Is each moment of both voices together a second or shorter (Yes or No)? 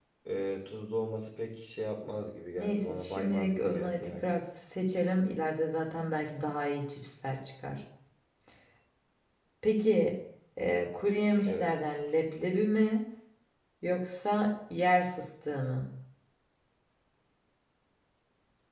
No